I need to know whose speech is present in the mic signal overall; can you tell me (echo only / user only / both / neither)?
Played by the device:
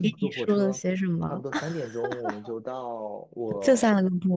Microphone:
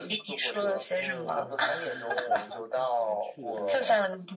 both